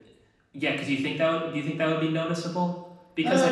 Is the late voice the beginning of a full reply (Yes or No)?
No